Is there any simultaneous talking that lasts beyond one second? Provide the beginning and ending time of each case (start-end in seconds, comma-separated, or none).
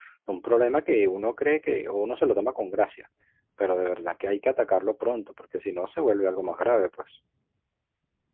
none